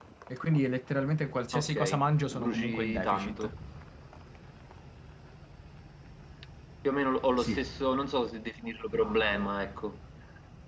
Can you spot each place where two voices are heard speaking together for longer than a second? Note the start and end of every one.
2.3-3.5

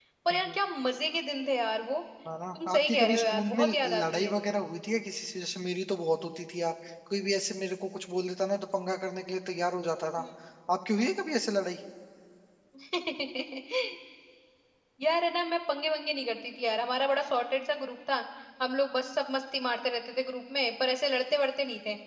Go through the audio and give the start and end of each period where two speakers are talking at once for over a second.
2.5-4.3

